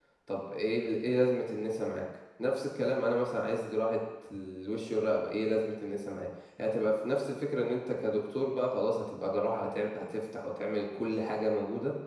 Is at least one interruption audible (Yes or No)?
No